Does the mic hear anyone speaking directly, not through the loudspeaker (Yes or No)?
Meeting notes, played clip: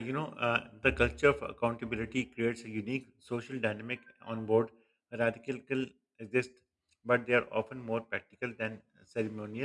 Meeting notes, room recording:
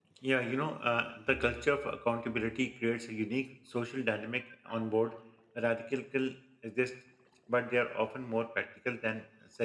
No